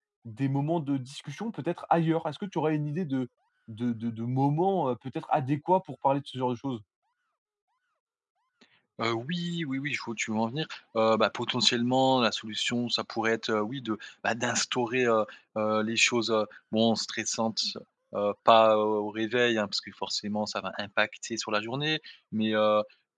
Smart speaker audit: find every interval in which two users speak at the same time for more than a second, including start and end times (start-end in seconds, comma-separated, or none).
none